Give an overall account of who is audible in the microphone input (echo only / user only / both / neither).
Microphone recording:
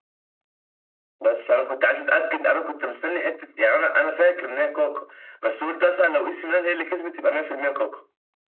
echo only